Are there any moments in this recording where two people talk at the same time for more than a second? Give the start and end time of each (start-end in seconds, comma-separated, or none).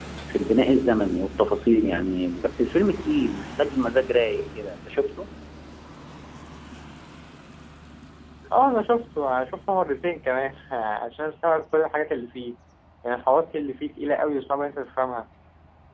none